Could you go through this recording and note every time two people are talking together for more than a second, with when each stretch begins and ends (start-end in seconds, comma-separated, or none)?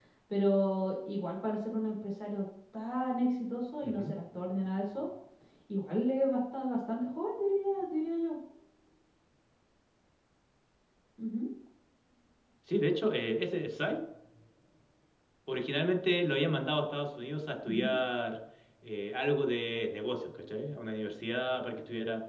none